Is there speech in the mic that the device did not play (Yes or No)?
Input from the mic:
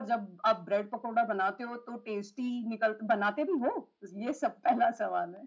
No